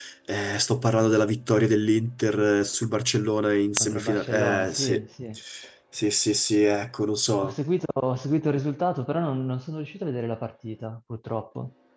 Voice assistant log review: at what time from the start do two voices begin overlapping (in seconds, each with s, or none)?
3.8 s